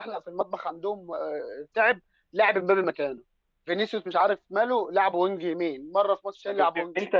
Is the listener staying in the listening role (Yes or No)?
No